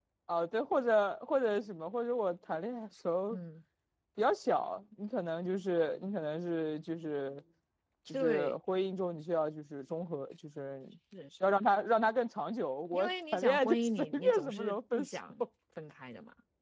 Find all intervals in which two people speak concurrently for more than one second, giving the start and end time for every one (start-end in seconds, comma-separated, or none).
12.9-15.2